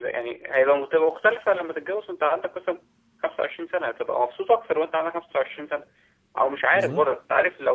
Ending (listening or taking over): listening